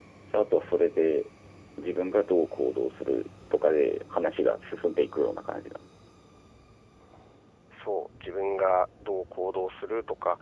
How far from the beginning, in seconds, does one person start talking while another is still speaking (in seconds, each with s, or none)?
none